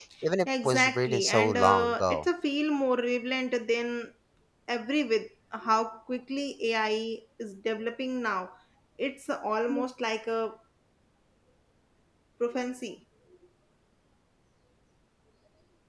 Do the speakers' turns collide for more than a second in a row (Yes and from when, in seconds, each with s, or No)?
Yes, from 0.6 s